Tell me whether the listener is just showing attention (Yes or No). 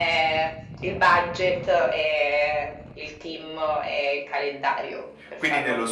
No